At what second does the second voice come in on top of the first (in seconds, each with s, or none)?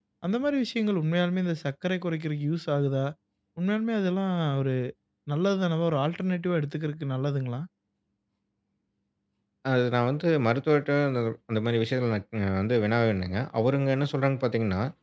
none